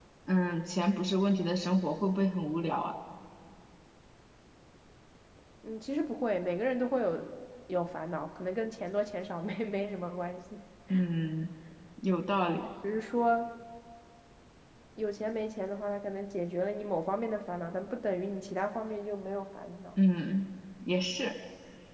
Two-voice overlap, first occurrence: none

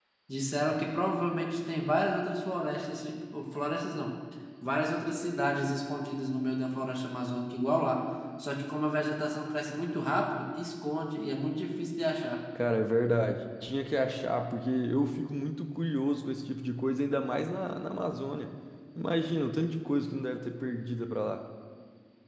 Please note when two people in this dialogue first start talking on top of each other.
none

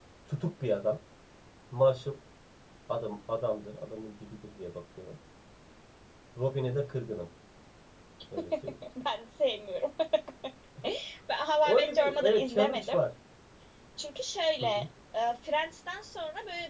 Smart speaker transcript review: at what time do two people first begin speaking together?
11.6 s

